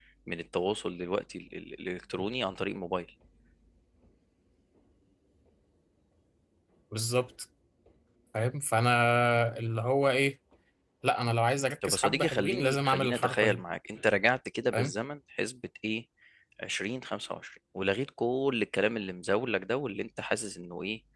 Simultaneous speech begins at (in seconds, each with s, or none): 11.8 s